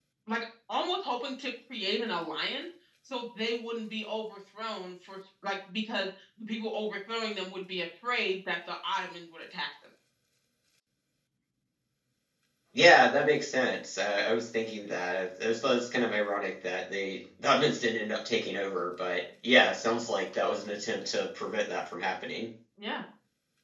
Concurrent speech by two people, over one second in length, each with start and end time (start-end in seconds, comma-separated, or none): none